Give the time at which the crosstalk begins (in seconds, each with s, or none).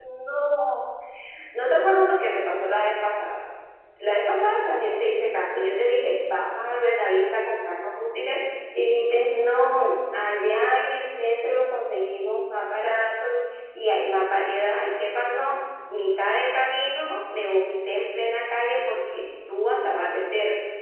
none